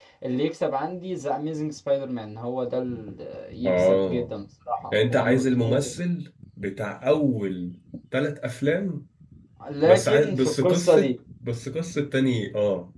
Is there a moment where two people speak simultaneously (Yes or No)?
Yes